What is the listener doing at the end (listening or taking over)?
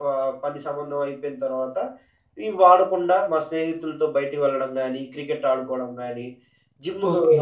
listening